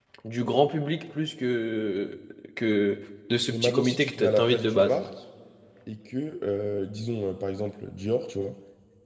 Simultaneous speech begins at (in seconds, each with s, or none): 3.5 s